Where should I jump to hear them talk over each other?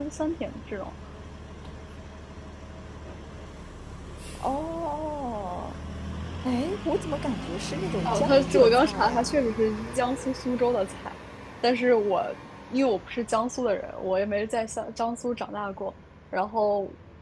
8 s

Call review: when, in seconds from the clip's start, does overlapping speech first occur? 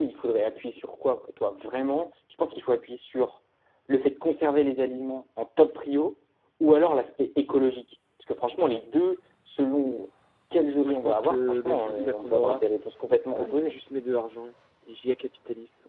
11 s

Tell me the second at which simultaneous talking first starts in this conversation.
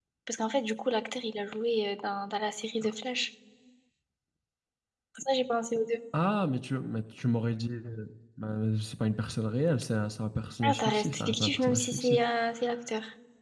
11 s

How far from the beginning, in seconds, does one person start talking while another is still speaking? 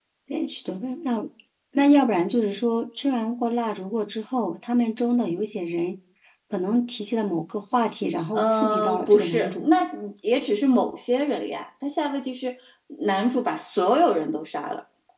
8 s

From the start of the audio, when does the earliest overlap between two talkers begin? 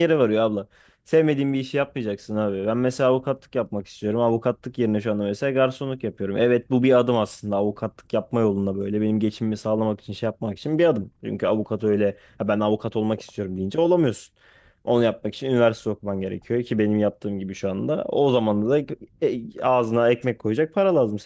none

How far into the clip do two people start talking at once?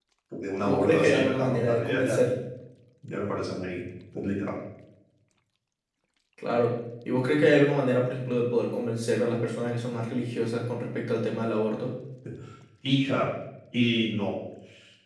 1 s

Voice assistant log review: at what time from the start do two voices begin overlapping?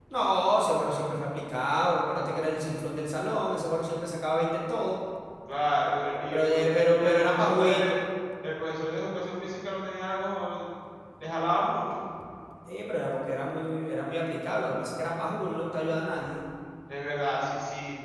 6 s

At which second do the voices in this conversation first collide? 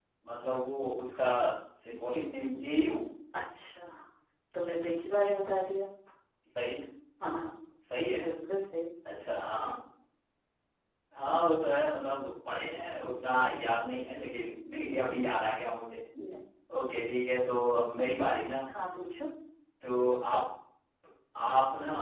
none

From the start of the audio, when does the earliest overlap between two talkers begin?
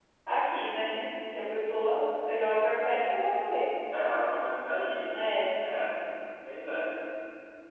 none

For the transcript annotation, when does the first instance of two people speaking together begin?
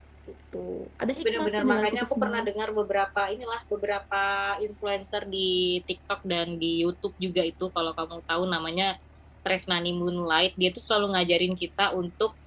1 s

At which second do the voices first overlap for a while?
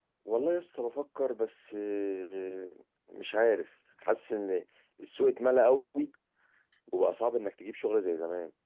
none

